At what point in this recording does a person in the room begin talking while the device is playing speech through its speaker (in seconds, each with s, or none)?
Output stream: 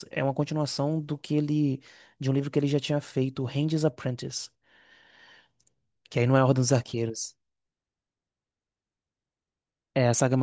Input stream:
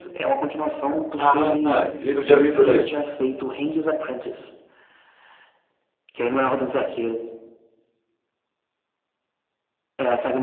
1.1 s